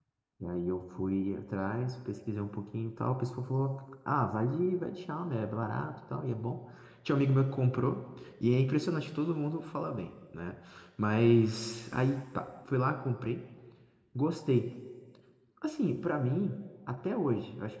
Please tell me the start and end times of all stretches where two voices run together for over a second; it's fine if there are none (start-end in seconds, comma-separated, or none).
none